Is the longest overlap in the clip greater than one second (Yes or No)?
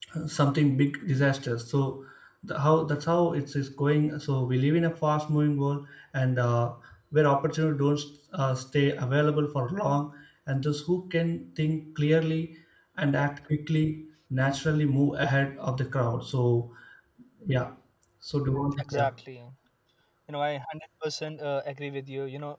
No